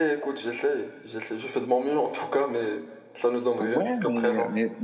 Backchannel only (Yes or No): No